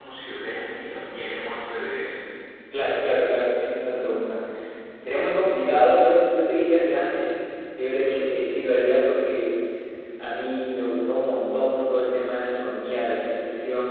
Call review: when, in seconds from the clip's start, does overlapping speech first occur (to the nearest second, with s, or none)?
none